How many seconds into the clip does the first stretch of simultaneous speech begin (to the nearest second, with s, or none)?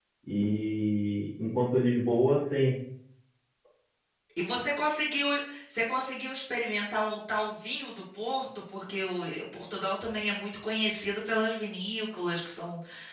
none